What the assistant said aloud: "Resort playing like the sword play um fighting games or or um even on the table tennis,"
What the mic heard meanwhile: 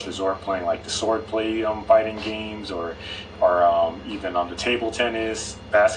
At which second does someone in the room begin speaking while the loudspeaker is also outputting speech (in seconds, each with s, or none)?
none